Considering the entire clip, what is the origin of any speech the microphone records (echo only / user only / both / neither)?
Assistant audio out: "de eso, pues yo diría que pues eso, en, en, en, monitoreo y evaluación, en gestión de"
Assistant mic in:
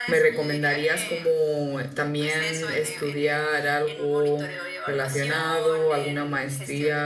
both